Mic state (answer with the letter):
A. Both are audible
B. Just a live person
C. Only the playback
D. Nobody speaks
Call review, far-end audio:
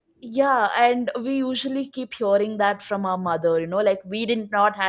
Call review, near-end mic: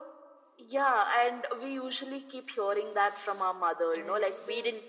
A